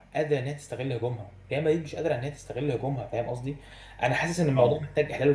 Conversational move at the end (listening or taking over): listening